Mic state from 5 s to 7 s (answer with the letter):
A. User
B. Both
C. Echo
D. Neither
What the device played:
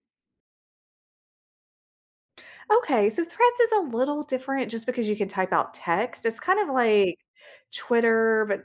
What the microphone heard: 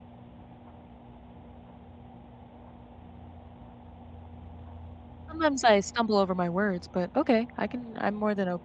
A